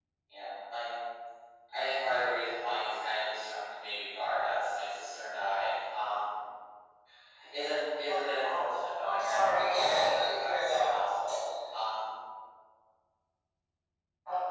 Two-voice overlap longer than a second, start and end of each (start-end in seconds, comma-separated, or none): 9.0-10.9